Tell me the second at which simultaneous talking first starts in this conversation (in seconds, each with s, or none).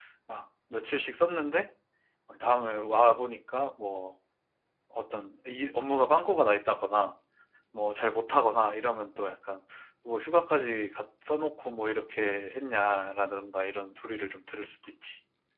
none